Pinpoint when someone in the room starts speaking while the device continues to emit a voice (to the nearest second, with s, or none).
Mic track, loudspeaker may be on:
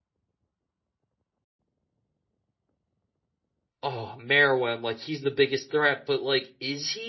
4 s